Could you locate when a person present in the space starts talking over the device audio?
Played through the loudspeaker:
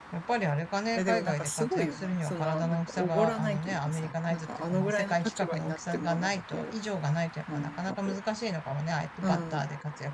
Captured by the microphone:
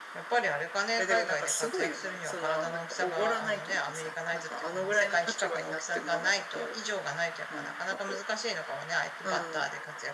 none

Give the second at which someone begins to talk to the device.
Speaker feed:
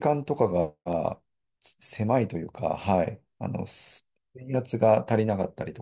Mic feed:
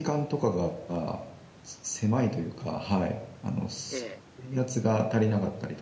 3.9 s

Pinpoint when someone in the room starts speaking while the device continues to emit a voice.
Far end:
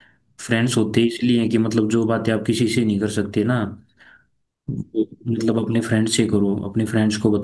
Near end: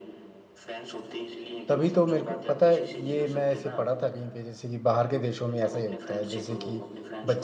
1.7 s

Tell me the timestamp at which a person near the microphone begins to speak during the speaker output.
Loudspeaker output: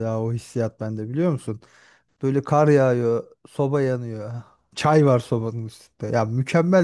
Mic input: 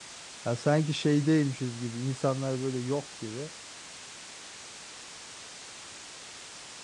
0.4 s

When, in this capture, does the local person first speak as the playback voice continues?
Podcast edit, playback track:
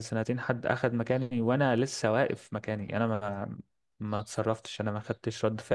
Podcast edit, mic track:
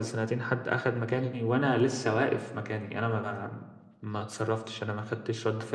none

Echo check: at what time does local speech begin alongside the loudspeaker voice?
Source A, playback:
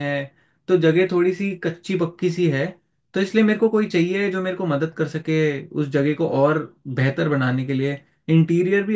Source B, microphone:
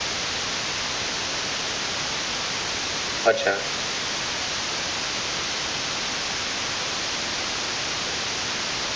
3.2 s

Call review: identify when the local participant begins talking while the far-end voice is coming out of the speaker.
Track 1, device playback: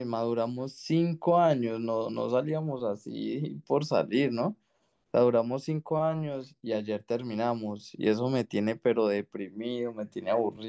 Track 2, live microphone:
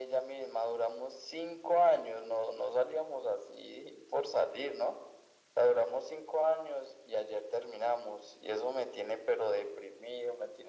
none

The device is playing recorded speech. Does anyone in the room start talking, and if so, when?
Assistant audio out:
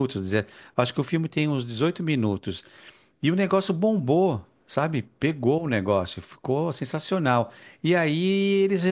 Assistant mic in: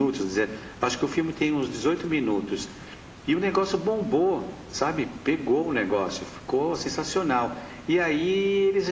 none

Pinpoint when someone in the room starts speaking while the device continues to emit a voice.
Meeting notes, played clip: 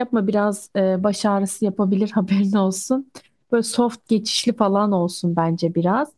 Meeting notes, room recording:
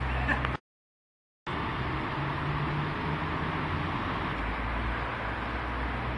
none

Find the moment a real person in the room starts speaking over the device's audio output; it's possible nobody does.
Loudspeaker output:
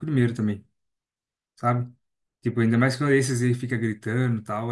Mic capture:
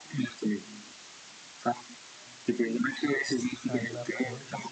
3.6 s

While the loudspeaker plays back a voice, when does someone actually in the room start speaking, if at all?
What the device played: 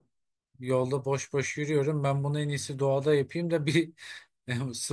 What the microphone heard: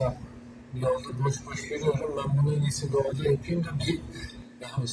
none

